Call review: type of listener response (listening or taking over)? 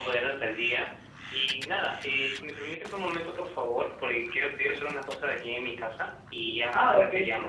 taking over